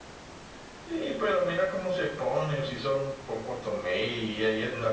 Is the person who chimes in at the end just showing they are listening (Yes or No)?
No